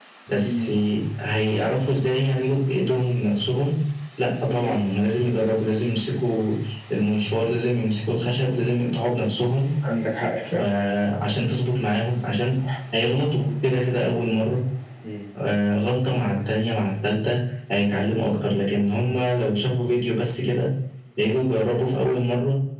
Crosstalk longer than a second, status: none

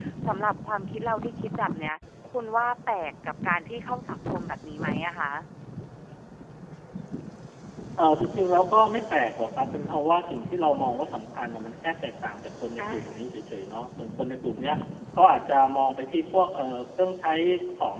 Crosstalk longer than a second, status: none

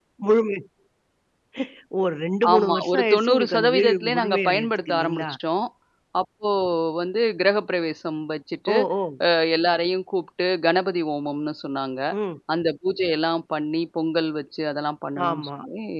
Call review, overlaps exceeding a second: present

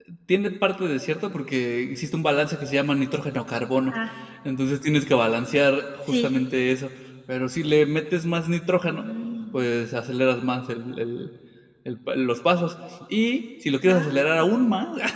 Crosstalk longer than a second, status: none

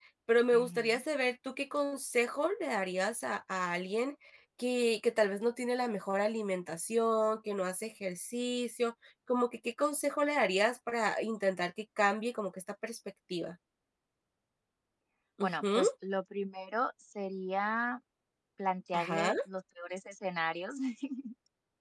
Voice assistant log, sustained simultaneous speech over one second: none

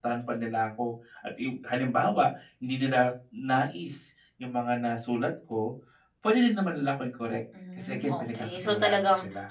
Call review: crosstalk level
present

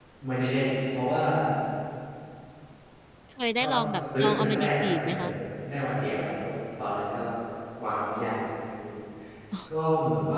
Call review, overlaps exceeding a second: present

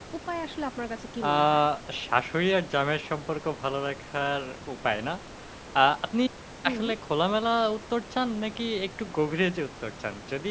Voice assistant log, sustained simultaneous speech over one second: none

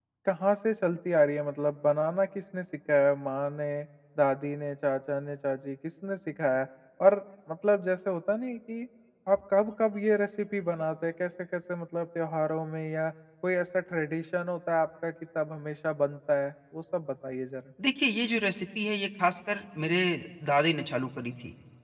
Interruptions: none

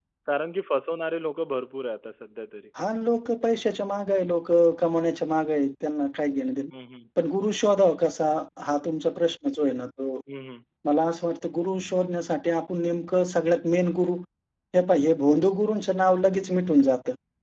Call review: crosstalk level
none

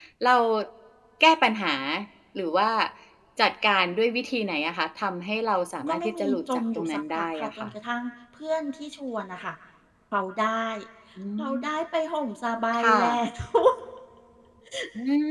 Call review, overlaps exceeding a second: present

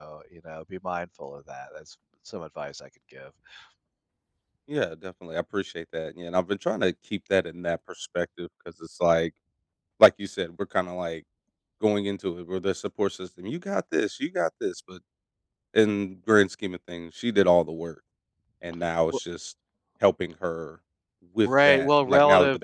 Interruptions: present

